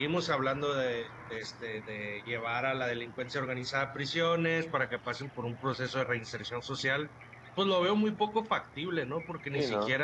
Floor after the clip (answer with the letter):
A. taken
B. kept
B